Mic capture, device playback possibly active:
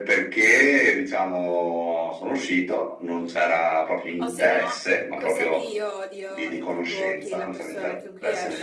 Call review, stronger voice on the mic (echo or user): echo